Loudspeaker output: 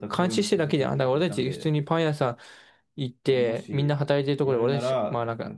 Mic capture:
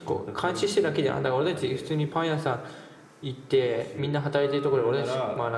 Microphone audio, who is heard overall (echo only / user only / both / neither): echo only